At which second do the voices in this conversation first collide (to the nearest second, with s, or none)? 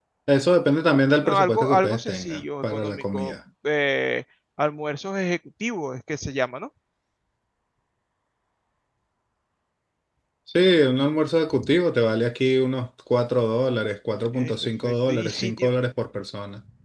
1 s